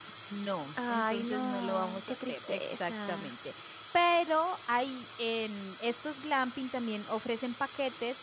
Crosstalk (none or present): present